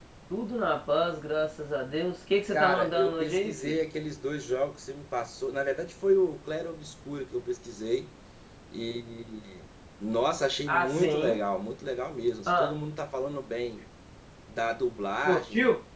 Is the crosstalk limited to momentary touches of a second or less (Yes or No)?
No